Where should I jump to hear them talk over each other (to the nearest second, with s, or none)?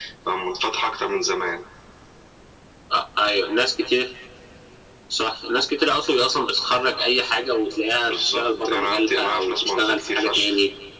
8 s